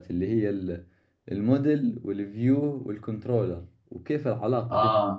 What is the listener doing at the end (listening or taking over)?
listening